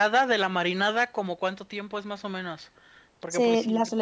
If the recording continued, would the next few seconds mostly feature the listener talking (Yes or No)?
Yes